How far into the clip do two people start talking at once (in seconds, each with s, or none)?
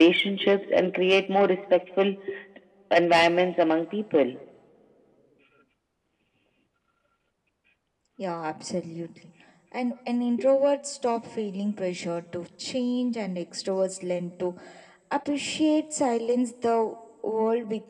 none